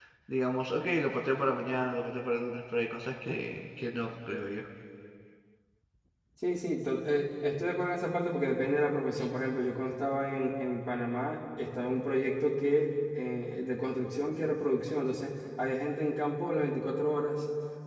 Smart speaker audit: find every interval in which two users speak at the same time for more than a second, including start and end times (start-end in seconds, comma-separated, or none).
none